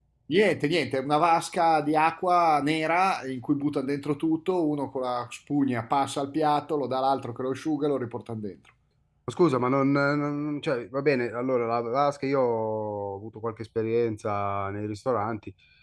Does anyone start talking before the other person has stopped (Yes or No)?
No